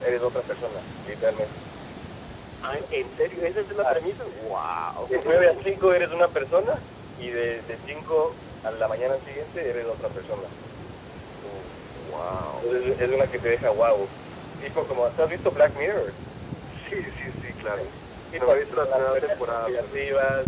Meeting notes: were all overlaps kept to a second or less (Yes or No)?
No